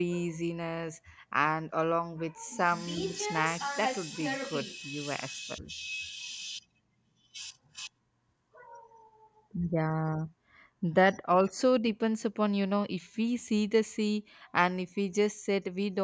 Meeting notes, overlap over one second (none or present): present